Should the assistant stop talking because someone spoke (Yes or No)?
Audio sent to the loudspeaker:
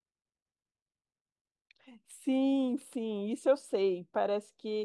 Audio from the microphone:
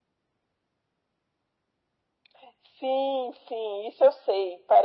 No